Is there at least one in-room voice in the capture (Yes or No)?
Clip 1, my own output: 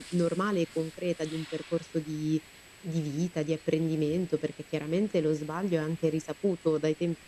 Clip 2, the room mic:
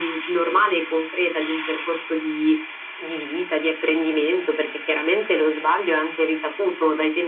No